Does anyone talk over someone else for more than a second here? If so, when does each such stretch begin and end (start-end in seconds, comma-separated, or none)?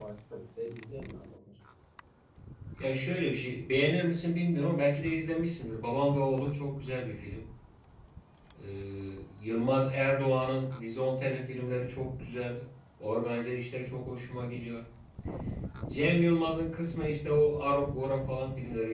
none